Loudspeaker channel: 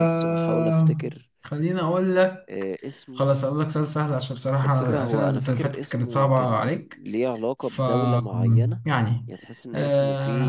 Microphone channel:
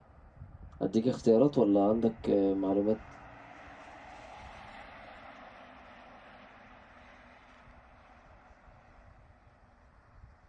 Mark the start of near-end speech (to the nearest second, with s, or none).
1 s